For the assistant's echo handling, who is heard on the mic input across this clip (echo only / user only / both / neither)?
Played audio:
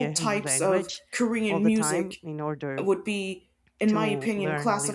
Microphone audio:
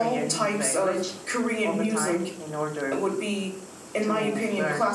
echo only